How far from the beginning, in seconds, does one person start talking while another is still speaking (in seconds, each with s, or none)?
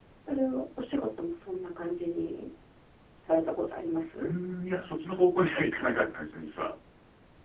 none